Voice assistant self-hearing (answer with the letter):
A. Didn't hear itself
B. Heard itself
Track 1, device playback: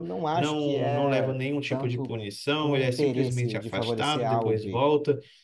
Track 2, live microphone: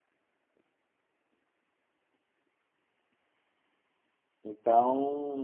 A